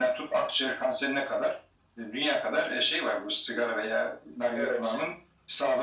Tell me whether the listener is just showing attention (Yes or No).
Yes